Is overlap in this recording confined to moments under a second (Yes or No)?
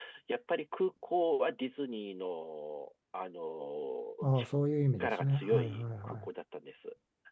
No